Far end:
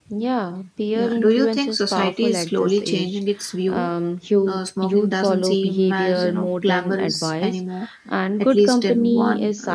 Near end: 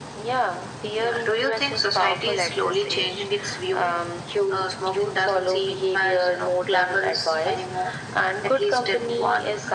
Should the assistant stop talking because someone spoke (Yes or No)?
No